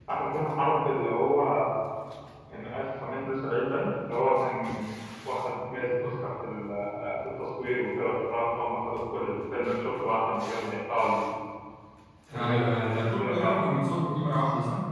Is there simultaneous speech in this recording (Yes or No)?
Yes